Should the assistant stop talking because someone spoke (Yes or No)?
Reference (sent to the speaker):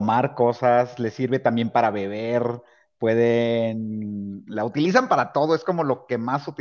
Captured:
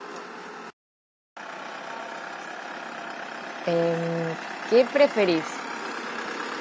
Yes